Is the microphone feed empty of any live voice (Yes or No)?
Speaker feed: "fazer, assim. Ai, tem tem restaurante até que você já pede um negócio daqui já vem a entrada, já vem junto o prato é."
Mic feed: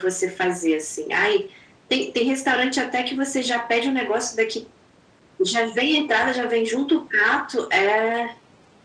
Yes